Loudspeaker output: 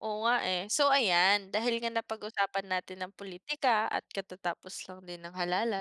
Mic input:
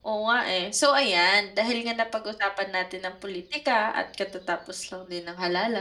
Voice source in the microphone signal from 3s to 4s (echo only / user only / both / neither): echo only